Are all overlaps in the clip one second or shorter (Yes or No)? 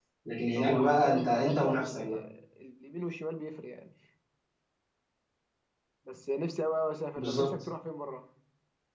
No